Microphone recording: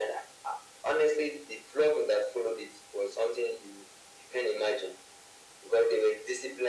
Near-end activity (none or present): none